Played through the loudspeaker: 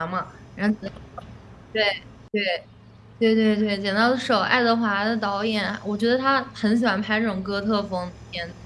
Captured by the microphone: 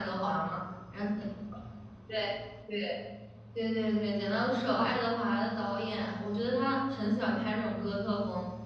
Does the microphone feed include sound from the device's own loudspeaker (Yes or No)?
Yes